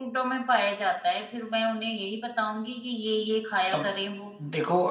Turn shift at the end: Yes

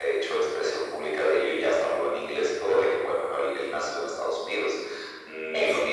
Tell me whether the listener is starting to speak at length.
No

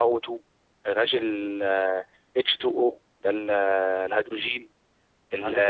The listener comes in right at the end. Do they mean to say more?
Yes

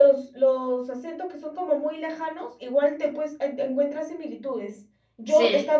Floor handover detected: No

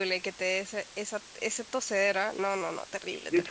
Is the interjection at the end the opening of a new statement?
Yes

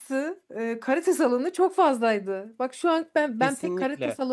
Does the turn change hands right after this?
Yes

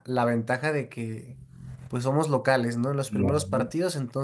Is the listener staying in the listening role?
Yes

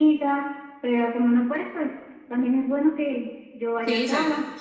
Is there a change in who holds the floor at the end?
Yes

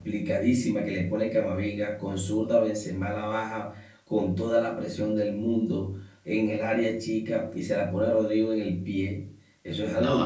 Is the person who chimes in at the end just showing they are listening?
Yes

